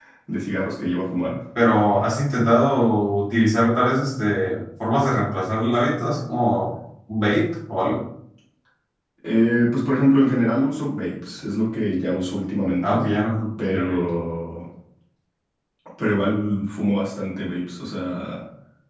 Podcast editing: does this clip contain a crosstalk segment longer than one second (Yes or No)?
No